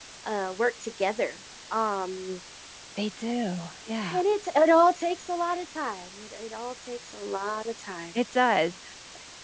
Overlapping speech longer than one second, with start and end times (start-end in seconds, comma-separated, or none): none